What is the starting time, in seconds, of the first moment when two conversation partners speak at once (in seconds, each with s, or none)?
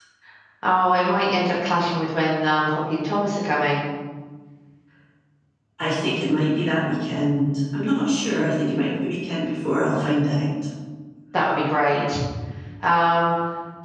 none